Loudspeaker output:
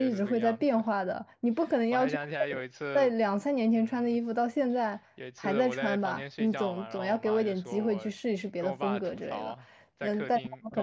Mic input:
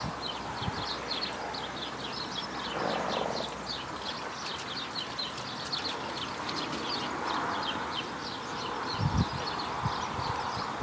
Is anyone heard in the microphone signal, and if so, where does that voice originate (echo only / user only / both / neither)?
neither